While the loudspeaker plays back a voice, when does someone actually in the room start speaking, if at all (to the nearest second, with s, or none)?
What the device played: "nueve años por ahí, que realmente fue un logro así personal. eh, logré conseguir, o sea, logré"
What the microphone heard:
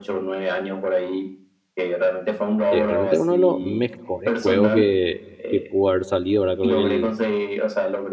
3 s